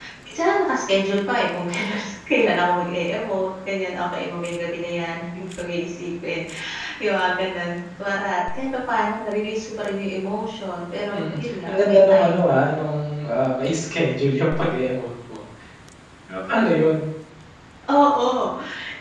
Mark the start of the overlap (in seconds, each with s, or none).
11.1 s